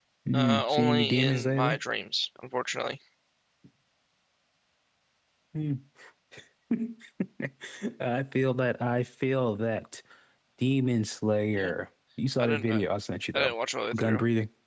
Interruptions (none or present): present